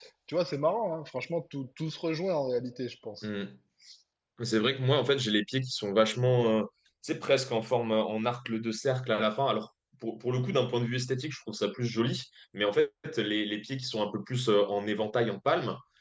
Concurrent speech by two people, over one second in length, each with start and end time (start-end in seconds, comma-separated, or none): none